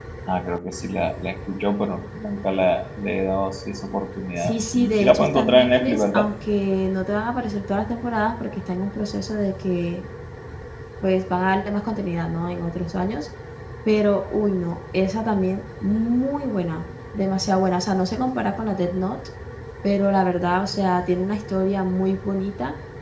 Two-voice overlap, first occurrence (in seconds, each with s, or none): 4.4 s